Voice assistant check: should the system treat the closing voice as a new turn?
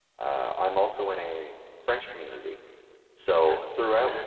No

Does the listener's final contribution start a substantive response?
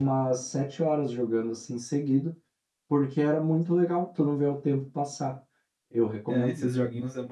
Yes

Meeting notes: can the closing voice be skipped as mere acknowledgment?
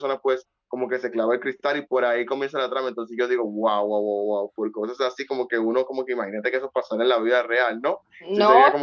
No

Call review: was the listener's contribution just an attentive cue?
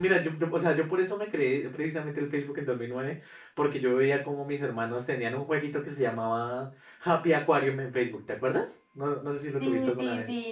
No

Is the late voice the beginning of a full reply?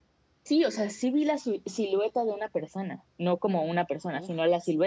No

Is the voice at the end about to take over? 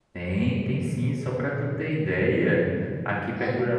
No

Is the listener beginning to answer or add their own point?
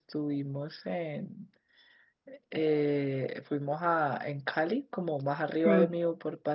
No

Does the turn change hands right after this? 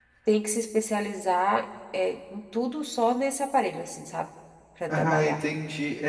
Yes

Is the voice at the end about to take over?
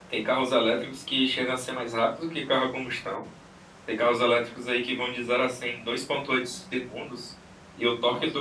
No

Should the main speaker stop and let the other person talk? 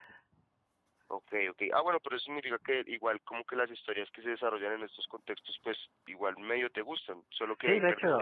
Yes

